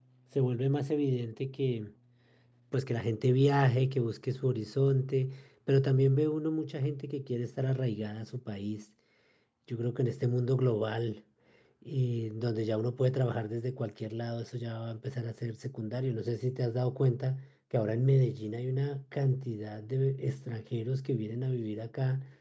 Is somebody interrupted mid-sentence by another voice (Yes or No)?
No